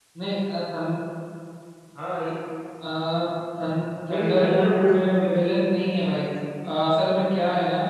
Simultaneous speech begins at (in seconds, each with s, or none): 4.1 s